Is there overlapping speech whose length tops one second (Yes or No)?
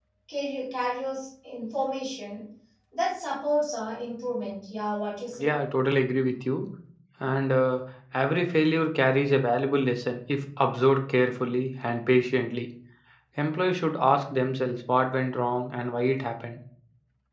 No